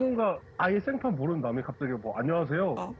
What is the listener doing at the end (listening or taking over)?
listening